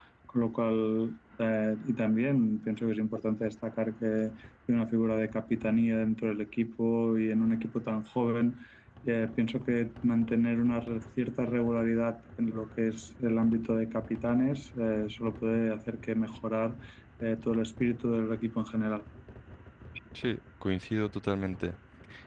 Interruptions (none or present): none